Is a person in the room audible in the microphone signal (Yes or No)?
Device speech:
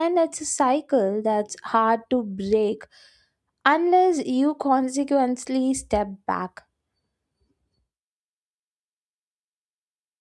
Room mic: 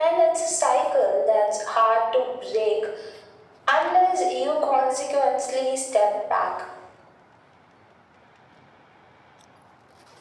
No